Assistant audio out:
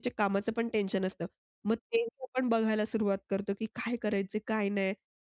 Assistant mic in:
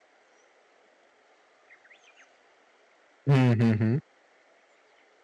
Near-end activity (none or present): present